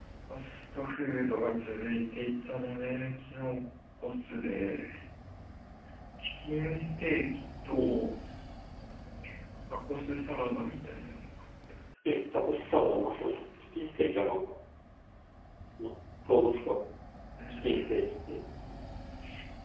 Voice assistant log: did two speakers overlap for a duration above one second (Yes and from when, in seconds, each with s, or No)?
No